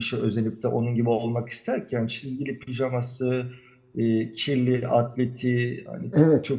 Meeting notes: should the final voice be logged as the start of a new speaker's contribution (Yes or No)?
No